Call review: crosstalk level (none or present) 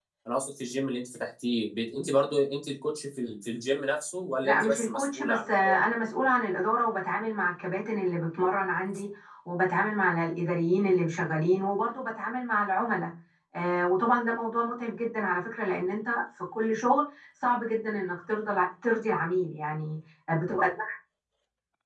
present